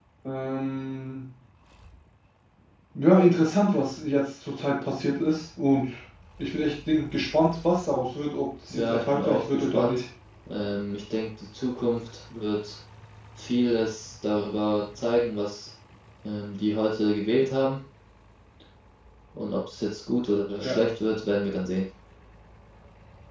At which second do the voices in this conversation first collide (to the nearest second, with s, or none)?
9 s